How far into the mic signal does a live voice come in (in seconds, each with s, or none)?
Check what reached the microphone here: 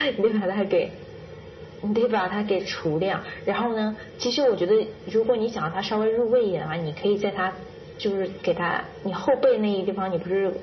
none